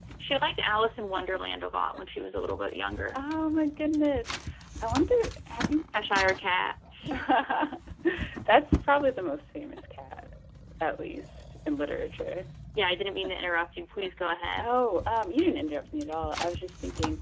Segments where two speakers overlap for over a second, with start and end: none

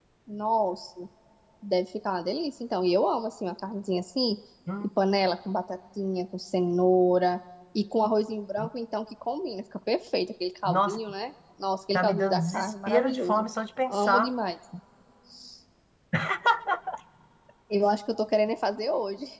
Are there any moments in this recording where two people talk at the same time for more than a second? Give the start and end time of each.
11.9-13.4

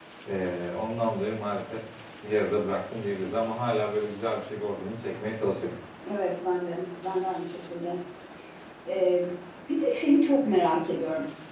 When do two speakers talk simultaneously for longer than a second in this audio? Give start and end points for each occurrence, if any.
none

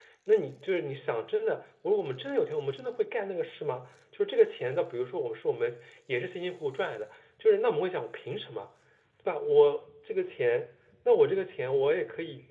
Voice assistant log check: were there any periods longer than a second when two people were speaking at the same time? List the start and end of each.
none

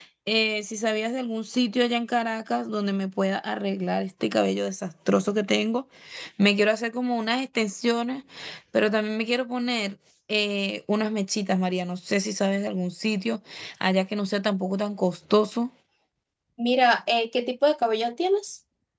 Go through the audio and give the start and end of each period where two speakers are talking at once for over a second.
none

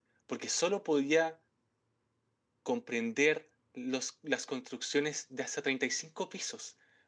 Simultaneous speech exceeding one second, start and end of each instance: none

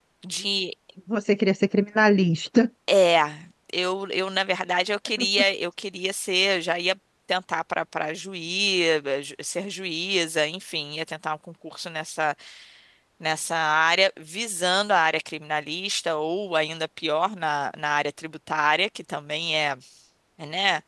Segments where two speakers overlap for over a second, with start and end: none

